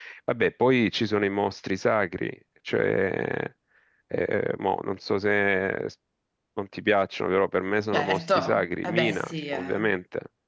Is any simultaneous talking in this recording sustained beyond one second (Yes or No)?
Yes